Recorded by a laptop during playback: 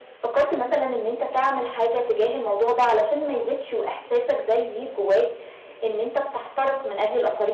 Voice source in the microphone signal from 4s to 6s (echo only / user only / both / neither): echo only